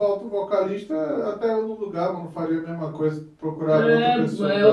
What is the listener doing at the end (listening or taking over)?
taking over